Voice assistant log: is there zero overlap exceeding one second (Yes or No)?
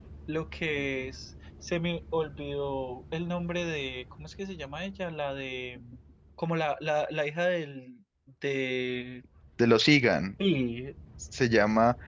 Yes